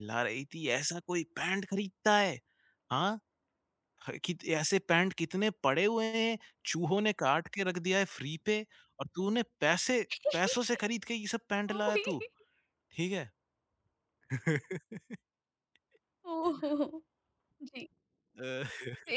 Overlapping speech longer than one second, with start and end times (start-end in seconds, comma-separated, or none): none